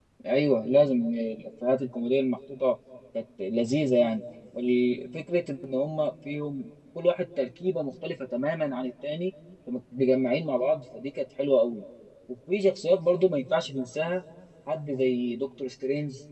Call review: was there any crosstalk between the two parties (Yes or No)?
No